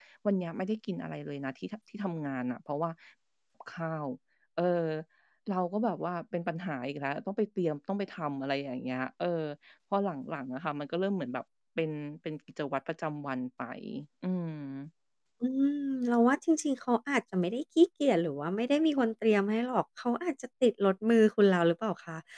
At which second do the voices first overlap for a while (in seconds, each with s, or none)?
none